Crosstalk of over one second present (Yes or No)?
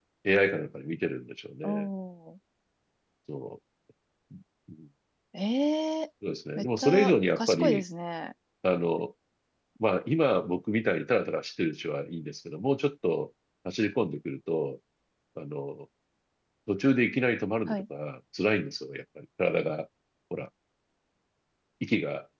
Yes